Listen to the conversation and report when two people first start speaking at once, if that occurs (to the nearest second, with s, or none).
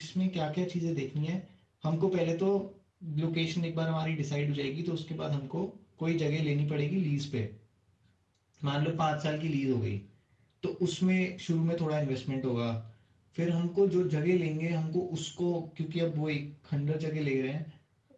none